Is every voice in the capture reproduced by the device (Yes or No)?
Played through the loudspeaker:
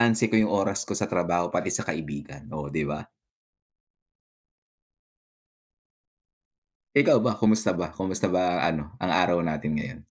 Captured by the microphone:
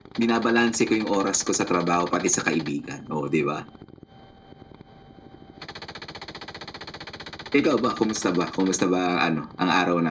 Yes